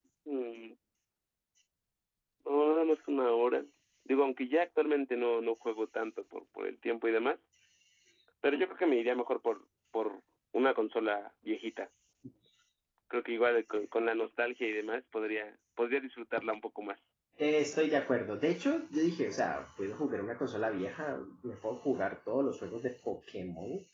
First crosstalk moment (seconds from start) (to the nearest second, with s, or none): none